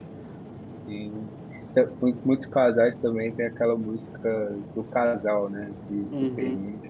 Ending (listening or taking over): taking over